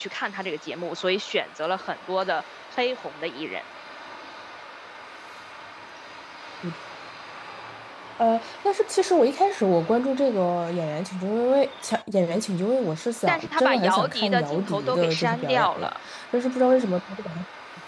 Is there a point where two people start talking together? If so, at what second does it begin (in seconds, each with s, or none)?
13.3 s